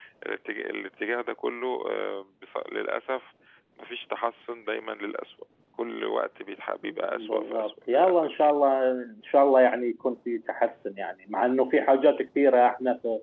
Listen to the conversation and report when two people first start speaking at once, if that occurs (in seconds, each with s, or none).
6.8 s